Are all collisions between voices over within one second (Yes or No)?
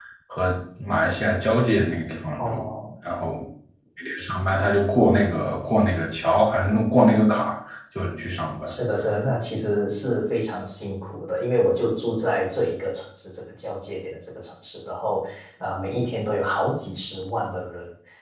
Yes